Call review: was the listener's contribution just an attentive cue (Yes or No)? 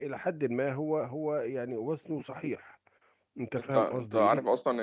No